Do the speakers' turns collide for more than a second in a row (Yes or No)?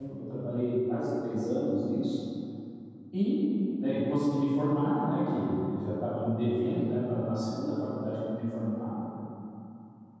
No